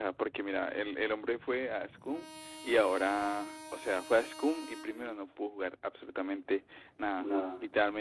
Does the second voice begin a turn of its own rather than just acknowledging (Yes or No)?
No